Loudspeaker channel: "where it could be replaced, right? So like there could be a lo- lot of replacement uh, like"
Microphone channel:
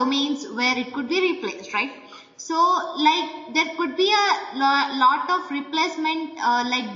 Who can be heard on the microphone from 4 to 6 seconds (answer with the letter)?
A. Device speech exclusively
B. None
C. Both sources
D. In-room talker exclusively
A